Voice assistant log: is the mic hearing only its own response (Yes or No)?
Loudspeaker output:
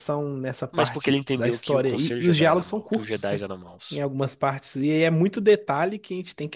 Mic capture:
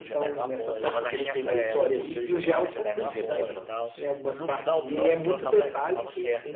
No